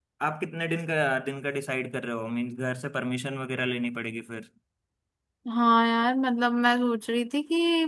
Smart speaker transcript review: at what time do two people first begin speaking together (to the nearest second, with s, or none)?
none